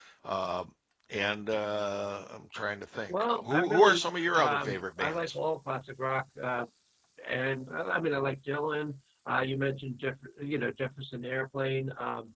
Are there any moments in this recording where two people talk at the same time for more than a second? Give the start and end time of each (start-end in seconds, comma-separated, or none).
3.1-5.2